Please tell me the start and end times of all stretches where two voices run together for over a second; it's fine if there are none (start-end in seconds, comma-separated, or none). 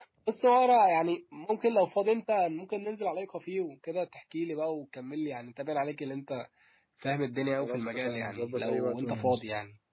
7.6-9.4